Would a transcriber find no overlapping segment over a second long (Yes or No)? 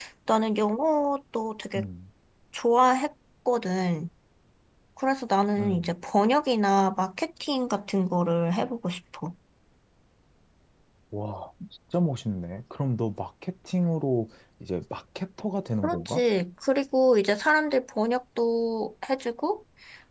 Yes